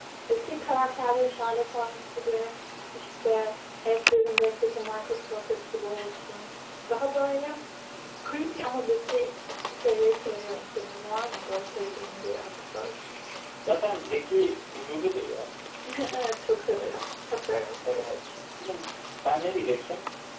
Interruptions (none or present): none